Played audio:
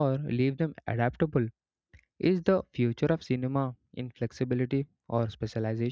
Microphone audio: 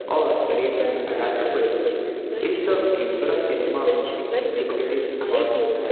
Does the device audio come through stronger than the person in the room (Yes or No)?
Yes